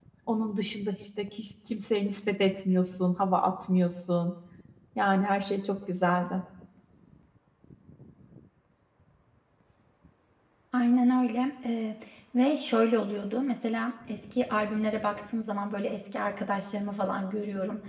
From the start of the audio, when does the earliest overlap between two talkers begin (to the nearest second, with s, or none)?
none